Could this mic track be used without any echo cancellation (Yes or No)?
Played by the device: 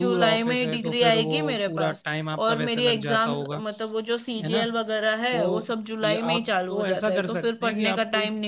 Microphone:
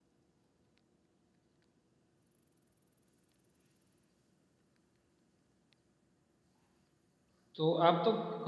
Yes